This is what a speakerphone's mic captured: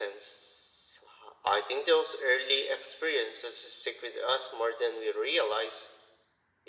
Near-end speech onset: none

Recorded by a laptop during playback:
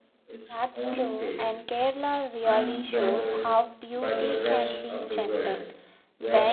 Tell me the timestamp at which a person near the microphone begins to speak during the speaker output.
0.5 s

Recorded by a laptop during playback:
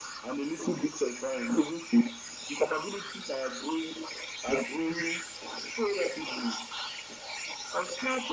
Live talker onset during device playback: none

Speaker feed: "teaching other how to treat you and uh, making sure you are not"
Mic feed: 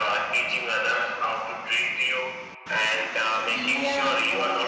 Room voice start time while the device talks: 3.5 s

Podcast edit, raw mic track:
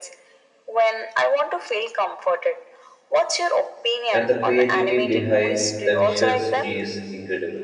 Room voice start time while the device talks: 4.1 s

